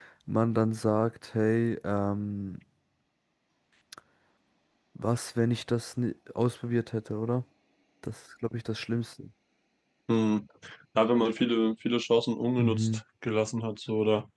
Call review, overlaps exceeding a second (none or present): none